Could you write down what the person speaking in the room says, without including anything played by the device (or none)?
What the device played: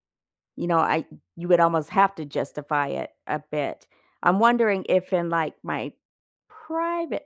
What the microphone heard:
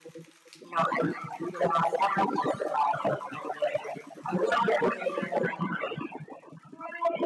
none